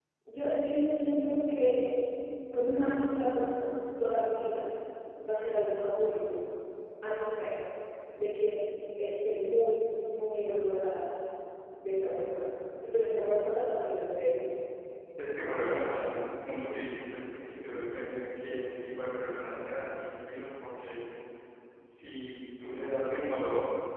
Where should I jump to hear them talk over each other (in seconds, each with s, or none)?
none